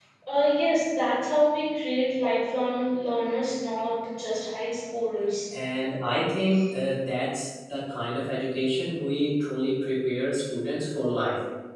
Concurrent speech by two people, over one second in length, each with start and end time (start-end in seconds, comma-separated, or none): none